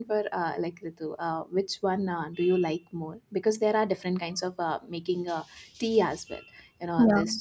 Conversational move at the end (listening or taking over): listening